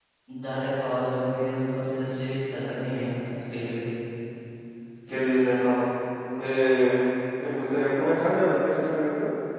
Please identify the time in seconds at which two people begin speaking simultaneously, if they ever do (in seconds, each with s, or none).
none